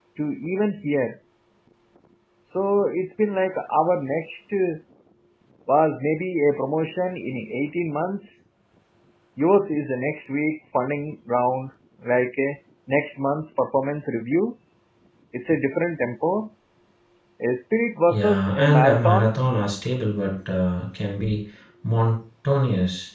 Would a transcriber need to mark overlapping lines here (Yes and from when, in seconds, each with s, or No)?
Yes, from 18.1 s